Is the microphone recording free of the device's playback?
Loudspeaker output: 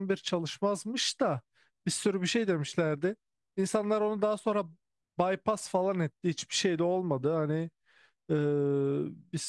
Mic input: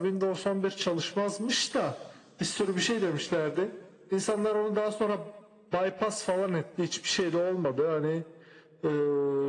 No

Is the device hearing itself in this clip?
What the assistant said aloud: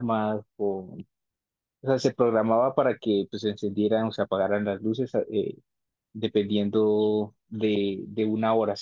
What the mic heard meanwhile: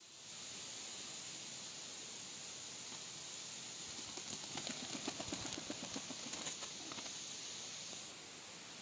No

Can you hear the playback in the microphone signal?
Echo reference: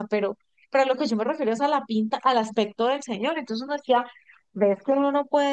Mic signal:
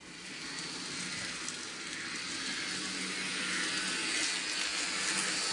No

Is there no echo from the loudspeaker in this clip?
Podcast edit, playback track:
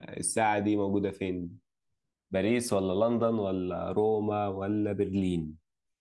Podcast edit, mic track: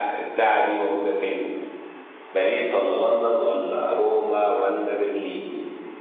No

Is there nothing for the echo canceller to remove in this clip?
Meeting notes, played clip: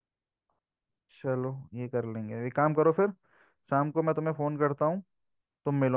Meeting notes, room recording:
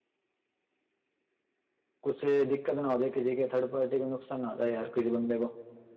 Yes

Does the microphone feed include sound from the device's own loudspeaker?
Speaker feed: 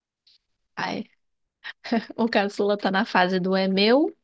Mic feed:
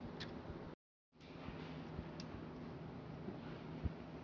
No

